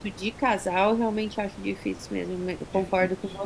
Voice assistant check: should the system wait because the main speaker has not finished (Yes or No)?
No